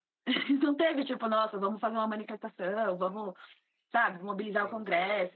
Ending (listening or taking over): listening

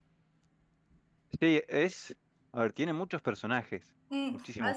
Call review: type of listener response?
taking over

